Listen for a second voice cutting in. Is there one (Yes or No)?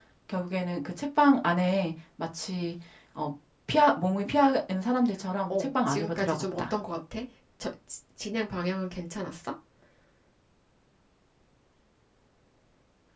Yes